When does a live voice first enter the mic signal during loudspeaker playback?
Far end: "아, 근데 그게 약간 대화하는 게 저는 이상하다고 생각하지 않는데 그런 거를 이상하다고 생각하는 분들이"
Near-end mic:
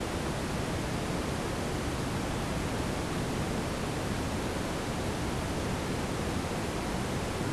none

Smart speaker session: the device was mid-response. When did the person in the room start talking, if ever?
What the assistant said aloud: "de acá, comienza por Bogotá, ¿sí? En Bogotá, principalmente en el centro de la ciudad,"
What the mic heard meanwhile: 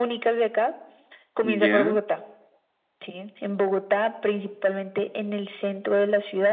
1.4 s

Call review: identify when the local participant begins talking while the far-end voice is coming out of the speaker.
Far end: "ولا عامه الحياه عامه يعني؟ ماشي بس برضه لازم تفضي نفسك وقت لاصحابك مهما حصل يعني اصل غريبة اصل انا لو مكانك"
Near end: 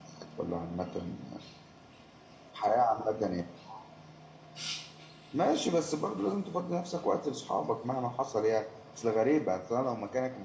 none

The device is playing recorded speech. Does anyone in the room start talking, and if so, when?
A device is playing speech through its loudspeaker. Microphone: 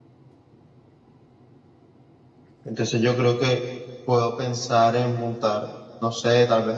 2.6 s

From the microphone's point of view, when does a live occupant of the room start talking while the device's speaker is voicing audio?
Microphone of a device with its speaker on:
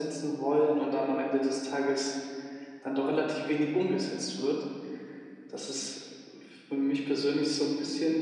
none

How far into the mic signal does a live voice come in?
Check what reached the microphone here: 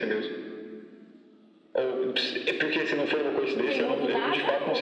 3.6 s

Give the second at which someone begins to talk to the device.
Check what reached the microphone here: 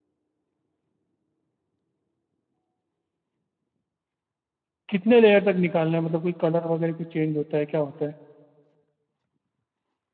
4.9 s

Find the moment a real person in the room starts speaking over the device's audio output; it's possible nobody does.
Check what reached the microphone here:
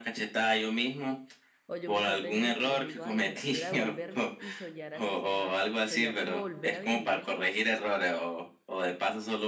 1.6 s

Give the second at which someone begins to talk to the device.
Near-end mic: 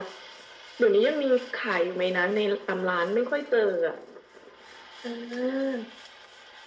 none

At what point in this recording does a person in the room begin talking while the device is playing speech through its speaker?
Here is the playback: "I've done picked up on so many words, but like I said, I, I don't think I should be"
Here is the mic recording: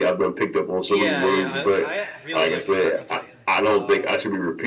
0.9 s

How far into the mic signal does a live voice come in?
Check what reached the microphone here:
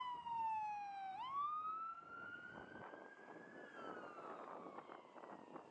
none

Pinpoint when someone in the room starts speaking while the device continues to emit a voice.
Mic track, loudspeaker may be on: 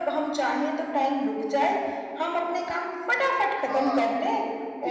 3.7 s

